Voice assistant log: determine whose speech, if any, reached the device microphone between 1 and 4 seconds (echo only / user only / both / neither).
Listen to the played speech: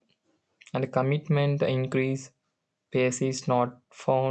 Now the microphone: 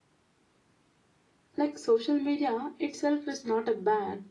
user only